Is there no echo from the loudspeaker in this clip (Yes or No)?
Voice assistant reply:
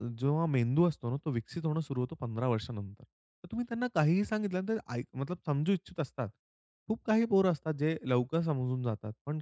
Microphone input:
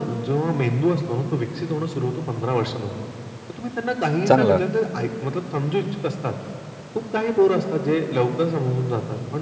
No